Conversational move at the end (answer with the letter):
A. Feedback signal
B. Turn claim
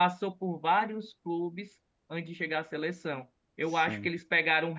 A